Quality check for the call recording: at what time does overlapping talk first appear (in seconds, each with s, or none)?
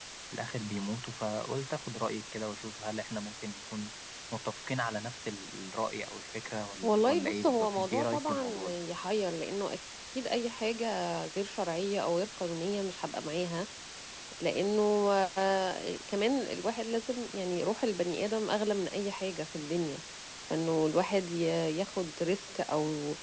6.8 s